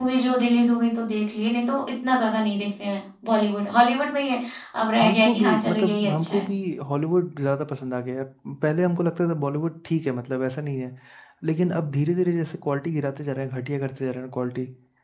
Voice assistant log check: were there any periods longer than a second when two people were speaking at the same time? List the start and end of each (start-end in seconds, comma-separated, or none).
5.0-6.5